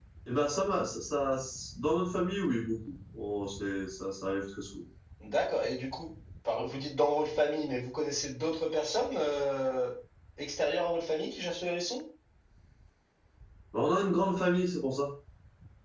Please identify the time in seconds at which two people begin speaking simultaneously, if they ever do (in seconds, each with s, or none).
none